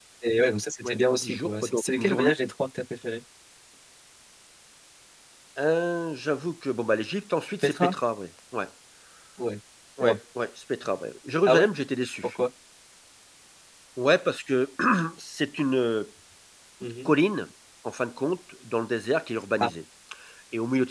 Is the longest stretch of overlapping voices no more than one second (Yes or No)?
No